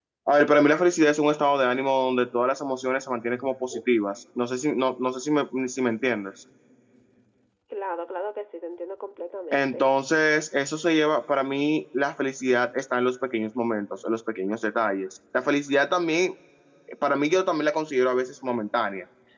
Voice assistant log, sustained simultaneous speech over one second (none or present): none